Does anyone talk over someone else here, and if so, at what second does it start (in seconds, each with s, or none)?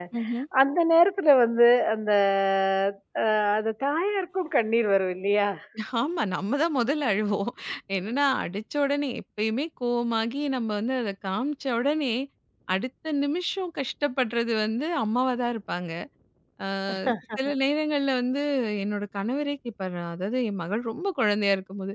none